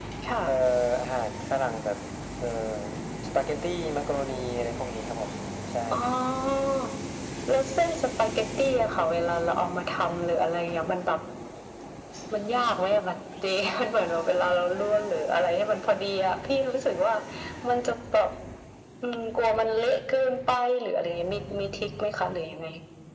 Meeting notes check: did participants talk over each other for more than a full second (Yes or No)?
No